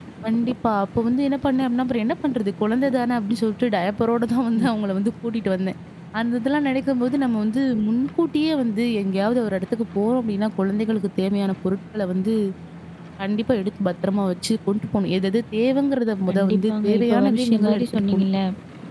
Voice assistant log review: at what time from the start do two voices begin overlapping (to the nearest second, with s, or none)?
16 s